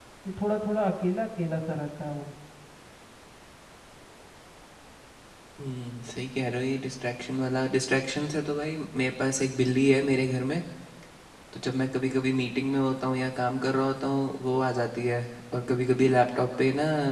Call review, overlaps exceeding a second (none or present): none